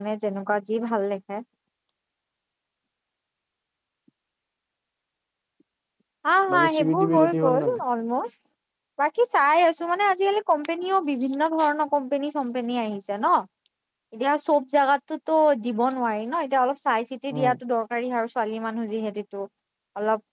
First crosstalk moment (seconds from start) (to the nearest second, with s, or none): 7 s